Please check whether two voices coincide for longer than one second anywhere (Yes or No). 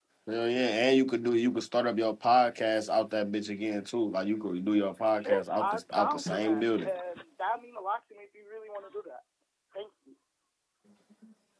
Yes